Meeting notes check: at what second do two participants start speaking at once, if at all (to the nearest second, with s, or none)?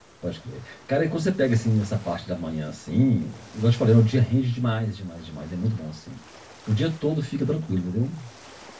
none